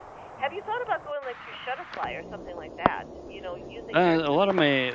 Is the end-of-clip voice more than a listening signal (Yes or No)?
Yes